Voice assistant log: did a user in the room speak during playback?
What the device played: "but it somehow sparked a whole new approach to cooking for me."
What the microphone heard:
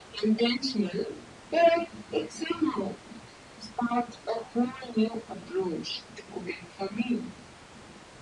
No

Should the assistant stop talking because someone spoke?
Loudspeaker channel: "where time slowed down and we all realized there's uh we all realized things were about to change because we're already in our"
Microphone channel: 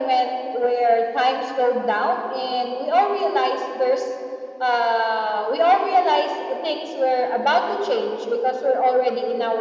No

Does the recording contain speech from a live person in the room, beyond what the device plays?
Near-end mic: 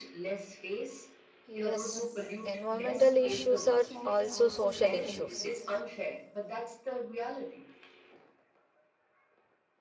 Yes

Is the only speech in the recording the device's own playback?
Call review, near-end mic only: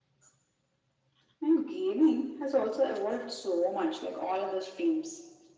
Yes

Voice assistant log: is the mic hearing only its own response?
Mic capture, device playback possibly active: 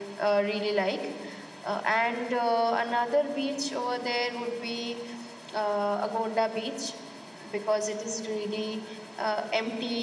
Yes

